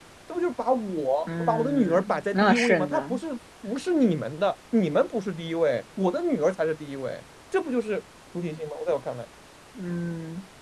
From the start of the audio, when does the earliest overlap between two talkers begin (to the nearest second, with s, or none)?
1 s